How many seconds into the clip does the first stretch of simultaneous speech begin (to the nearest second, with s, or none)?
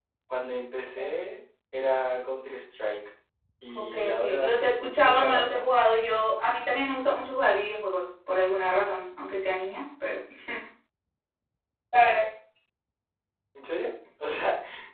4 s